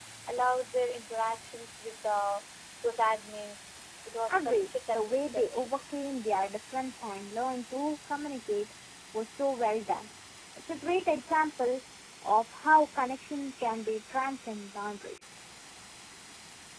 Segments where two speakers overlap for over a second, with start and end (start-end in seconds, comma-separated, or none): 4.3-5.7